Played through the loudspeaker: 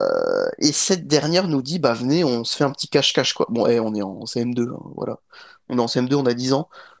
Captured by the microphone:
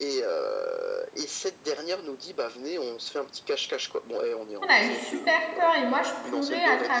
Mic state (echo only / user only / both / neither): both